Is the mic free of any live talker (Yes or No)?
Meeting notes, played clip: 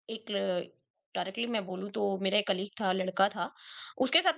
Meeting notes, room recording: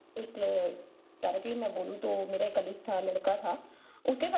Yes